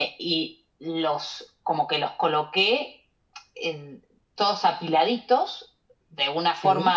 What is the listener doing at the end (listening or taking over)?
listening